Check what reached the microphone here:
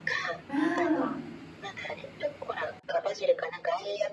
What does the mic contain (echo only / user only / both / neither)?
both